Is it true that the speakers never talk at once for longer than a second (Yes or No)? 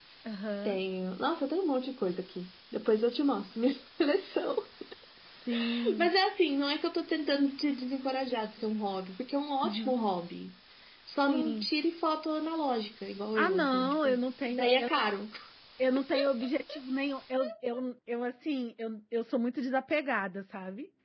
No